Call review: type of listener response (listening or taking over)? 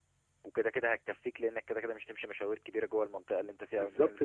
taking over